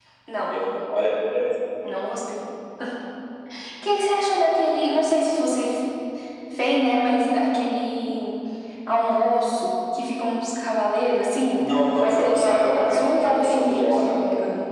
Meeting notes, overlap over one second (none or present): present